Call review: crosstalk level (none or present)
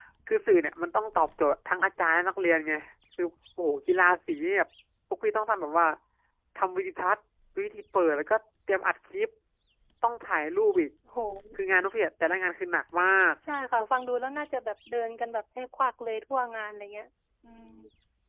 none